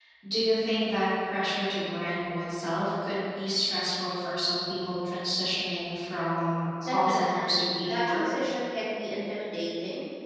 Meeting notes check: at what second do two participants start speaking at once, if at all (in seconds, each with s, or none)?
6.8 s